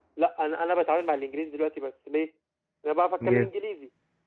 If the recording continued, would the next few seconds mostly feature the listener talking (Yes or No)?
No